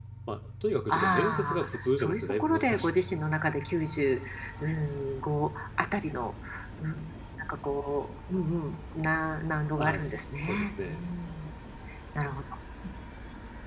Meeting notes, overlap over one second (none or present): present